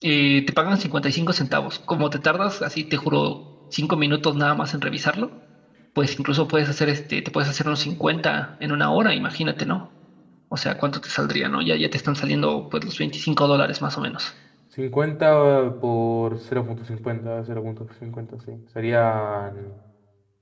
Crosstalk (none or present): none